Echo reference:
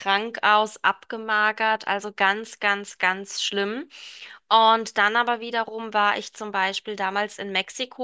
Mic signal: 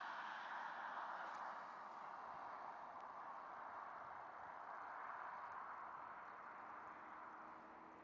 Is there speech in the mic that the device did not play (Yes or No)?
No